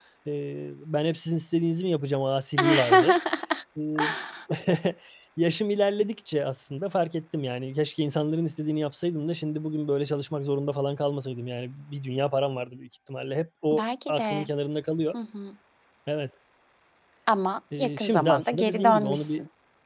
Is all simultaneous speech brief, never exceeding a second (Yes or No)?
No